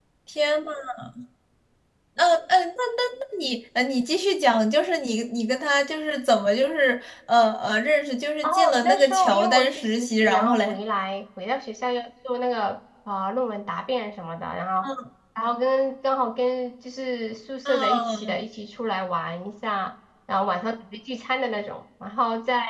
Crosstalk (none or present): present